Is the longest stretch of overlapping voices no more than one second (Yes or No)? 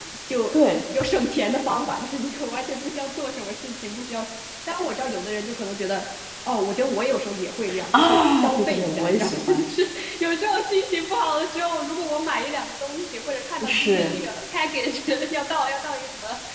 No